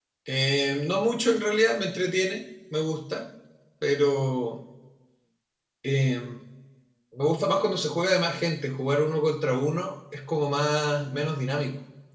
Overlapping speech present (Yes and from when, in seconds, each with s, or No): No